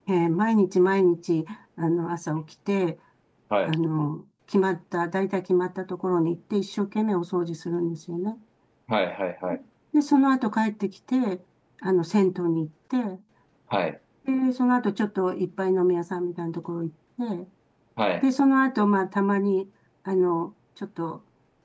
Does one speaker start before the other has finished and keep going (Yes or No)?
No